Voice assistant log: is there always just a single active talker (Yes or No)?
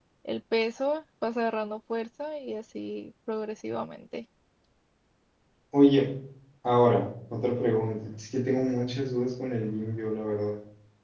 Yes